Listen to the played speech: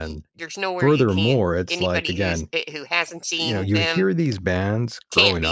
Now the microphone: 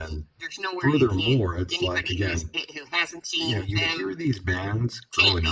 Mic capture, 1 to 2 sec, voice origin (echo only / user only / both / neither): echo only